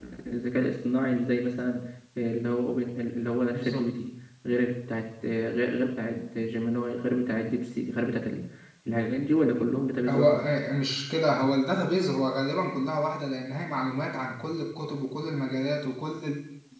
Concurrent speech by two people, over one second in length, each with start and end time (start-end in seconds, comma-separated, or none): none